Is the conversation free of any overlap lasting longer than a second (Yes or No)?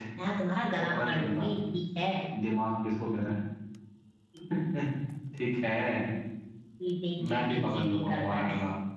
No